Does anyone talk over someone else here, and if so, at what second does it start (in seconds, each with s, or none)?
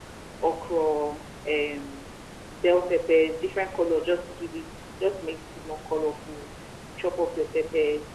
none